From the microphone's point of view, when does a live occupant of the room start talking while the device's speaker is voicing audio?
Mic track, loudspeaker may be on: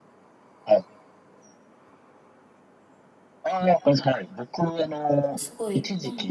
5.4 s

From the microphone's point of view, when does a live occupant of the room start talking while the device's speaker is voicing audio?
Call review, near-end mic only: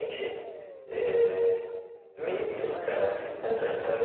2.5 s

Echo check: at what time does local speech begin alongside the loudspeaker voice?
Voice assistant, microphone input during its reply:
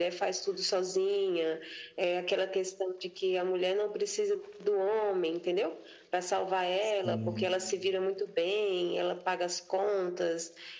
6.8 s

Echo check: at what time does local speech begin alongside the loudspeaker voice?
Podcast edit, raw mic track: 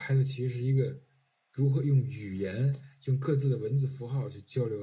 none

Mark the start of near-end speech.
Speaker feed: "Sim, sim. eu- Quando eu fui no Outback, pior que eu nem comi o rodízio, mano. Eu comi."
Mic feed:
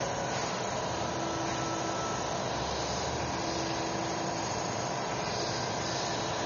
none

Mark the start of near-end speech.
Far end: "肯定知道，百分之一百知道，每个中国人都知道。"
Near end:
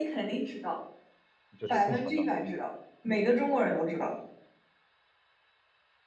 1.6 s

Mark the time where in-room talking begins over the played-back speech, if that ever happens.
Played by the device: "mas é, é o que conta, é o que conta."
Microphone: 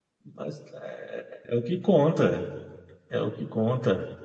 none

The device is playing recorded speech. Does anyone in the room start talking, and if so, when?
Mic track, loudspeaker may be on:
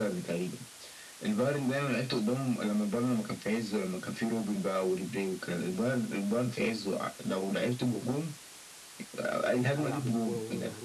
9.6 s

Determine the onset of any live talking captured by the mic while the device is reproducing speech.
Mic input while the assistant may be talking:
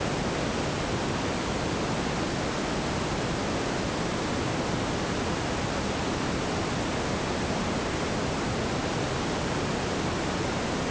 none

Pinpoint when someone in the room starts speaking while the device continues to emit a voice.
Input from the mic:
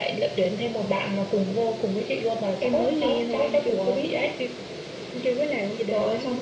none

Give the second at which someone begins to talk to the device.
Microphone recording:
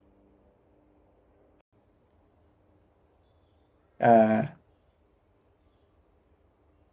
4.0 s

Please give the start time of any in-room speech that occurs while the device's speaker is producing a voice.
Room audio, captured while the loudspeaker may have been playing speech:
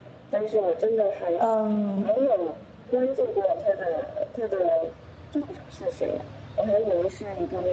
1.3 s

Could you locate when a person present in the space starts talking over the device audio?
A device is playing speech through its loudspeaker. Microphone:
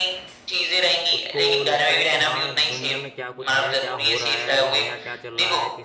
1.2 s

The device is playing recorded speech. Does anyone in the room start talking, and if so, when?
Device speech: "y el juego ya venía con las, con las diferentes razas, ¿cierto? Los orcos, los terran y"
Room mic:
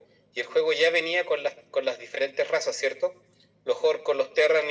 none

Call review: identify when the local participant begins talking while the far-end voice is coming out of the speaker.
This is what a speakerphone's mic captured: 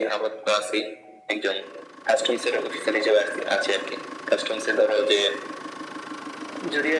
none

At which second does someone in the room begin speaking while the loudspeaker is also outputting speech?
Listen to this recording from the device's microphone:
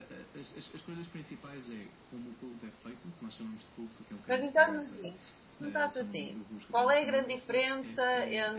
4.3 s

